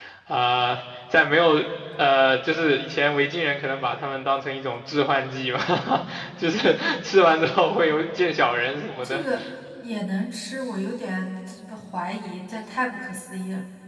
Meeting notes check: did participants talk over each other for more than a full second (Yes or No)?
No